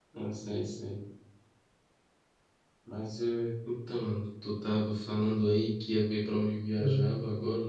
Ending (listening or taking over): listening